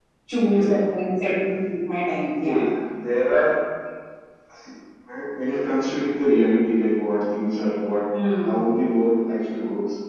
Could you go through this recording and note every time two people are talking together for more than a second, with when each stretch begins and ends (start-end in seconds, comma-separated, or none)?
none